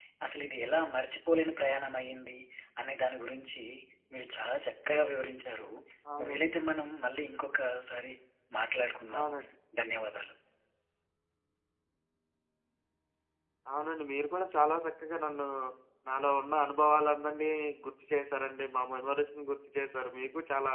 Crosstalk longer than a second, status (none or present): none